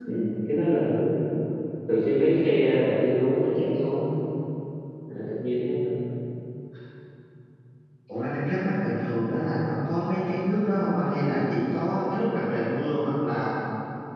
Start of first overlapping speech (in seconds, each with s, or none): none